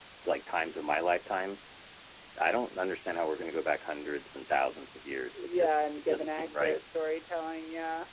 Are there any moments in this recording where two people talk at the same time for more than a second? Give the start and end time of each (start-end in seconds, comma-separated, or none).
5.3-6.8